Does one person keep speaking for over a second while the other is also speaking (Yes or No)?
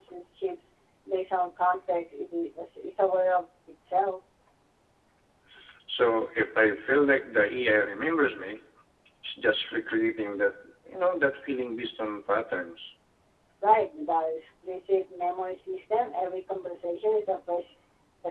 No